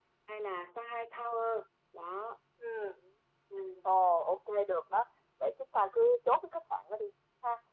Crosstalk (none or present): none